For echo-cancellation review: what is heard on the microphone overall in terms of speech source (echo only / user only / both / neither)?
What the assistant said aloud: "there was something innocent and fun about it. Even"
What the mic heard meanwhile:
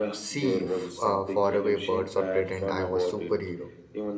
both